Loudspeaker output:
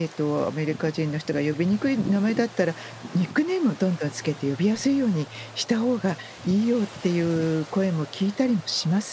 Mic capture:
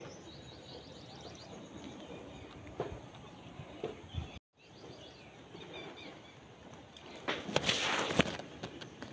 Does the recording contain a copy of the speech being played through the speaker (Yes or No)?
No